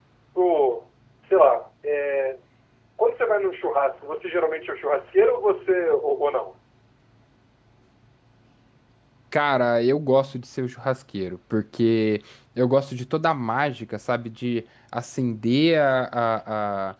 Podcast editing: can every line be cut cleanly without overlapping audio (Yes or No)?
Yes